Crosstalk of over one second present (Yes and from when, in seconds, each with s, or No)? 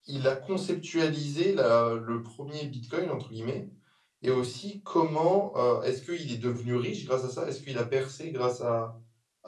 No